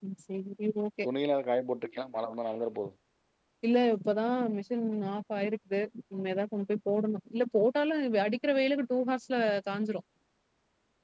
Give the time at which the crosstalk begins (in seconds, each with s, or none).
none